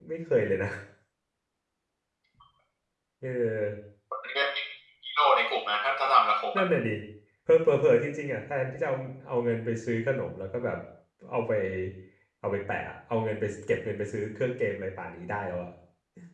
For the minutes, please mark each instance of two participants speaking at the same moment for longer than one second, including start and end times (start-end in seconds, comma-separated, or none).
none